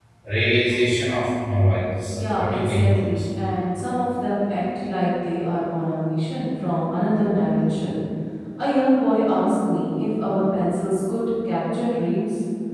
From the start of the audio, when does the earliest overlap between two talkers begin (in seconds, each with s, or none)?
1.8 s